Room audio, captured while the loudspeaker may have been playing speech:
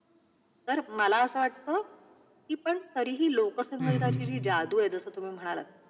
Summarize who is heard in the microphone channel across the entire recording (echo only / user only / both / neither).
both